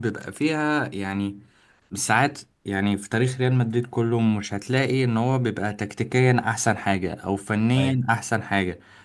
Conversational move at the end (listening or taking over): listening